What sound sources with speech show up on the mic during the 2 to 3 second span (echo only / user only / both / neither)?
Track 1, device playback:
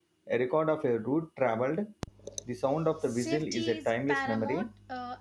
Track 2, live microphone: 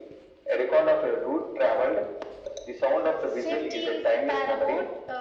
echo only